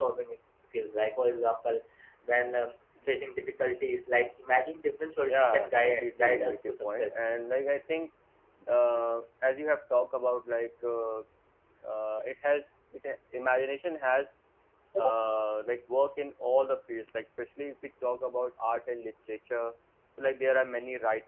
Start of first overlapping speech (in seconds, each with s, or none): 5.3 s